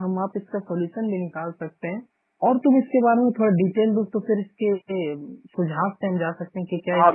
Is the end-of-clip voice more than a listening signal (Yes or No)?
Yes